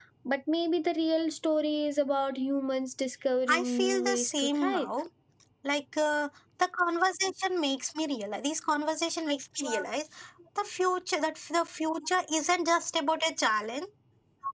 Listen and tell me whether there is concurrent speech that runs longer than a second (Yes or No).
Yes